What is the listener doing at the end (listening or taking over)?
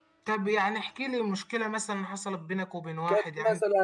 taking over